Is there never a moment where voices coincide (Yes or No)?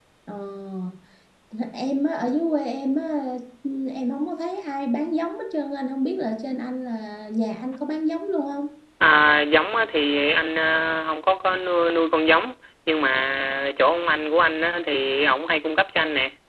Yes